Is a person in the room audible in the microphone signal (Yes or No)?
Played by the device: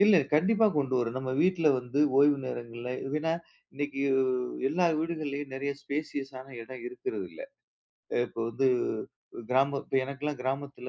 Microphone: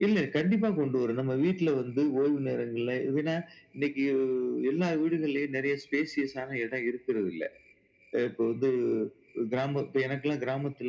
No